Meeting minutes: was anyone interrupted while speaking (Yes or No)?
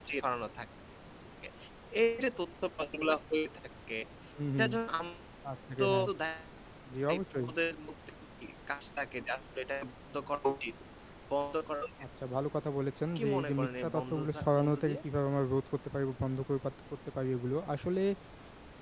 Yes